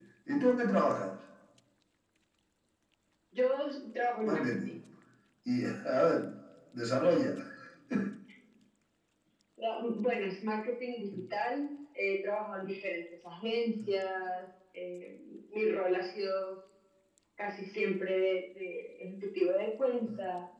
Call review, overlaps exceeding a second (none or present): none